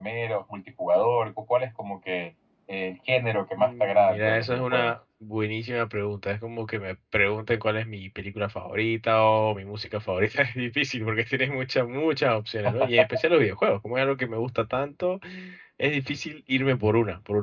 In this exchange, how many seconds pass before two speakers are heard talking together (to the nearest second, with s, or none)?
4 s